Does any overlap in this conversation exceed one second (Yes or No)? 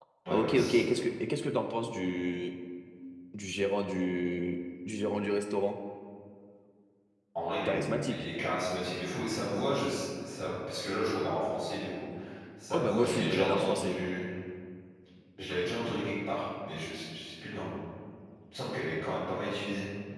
Yes